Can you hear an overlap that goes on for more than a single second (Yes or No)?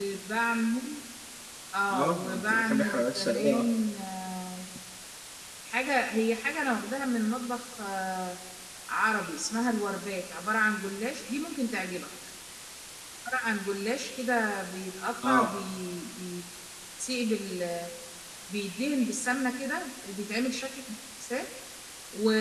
Yes